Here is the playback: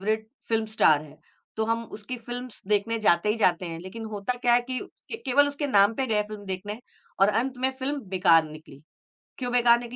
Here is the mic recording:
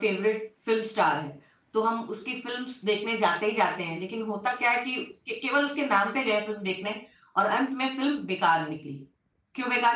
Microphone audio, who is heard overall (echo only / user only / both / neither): echo only